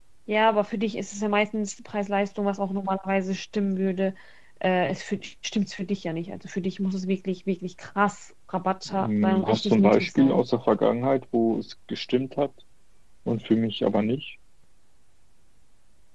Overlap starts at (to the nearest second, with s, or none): 9 s